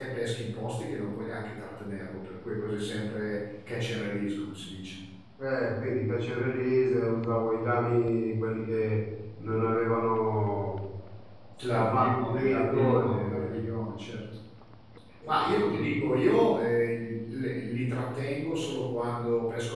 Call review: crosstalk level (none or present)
present